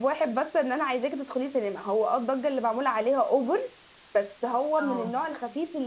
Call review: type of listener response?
listening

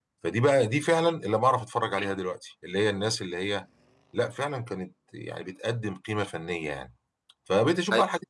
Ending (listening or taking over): listening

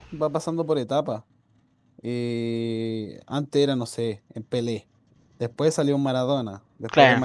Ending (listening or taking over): listening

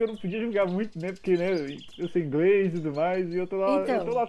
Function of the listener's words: listening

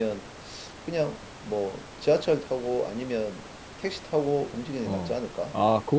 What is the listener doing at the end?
taking over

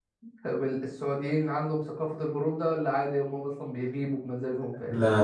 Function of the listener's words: taking over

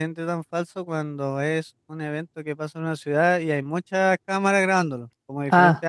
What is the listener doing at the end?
listening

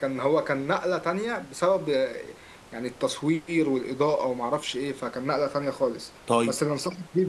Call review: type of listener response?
listening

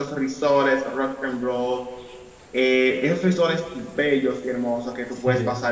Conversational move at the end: listening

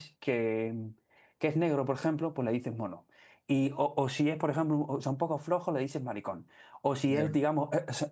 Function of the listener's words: listening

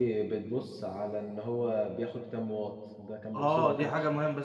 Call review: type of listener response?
taking over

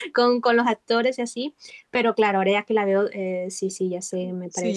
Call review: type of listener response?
taking over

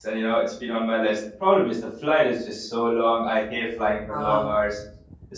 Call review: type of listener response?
listening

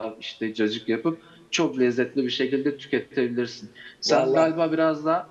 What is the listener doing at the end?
listening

